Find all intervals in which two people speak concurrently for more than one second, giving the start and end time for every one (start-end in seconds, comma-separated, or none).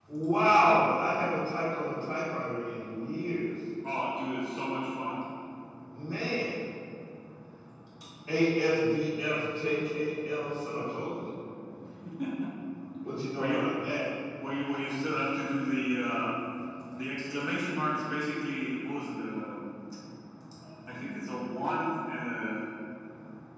none